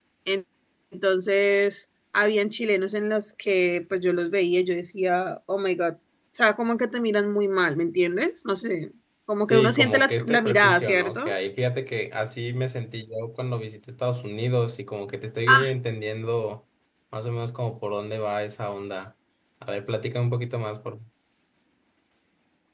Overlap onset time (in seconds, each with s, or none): 9.4 s